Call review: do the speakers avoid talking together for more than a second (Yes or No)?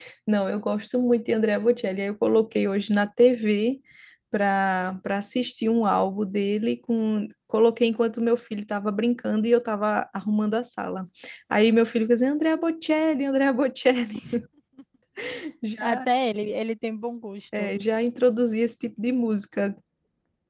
Yes